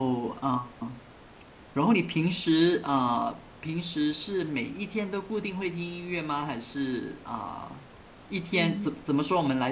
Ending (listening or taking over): listening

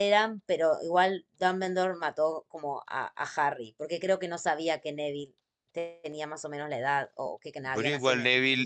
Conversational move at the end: taking over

